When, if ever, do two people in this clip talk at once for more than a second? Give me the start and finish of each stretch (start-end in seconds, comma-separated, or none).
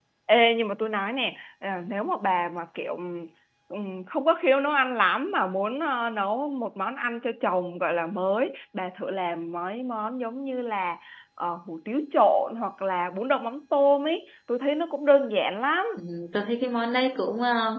none